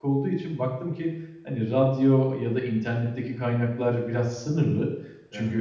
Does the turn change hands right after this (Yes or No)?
No